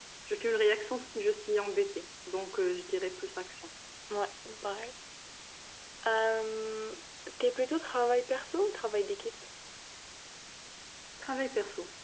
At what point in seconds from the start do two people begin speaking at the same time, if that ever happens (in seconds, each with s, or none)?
none